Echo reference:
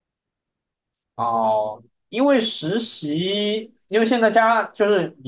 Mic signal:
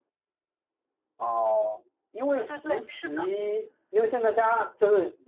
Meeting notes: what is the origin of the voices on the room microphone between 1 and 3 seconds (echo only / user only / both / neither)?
both